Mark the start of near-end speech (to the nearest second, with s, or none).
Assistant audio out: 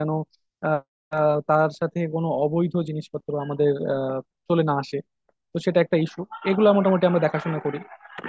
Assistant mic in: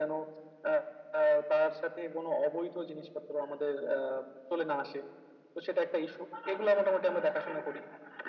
none